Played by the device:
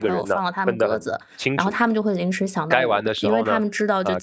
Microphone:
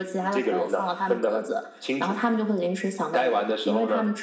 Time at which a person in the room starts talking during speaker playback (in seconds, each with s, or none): none